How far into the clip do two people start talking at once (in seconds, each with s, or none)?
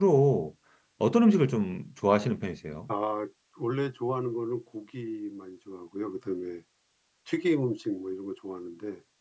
none